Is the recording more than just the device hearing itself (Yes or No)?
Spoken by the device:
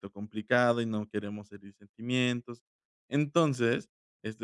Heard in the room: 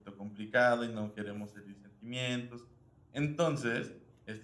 No